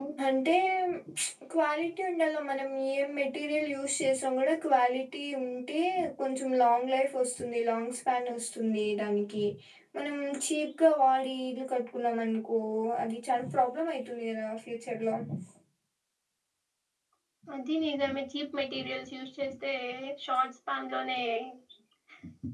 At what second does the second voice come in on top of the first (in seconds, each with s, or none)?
none